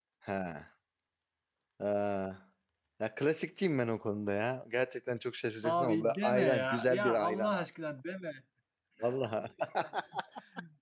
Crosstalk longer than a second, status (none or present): present